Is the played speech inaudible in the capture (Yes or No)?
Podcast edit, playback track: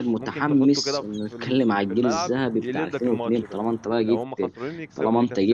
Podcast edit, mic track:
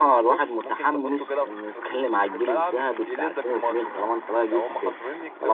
No